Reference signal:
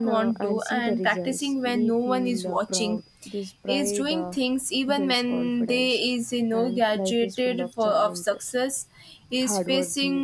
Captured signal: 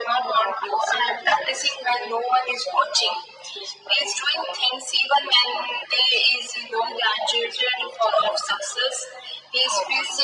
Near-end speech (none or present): none